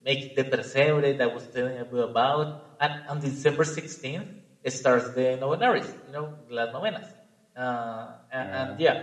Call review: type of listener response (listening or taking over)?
listening